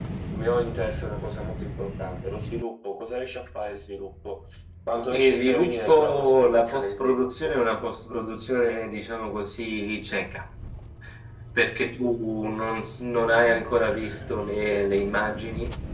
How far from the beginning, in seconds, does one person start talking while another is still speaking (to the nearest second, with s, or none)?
5 s